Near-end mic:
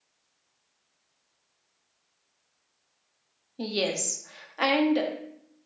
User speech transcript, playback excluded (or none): Yes, and